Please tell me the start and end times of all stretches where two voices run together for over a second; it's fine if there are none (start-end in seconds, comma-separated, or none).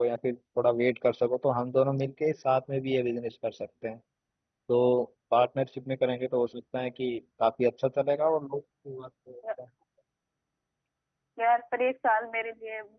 none